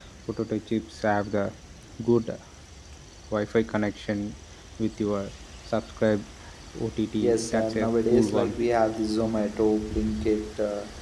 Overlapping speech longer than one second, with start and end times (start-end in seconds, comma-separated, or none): 7.2-8.6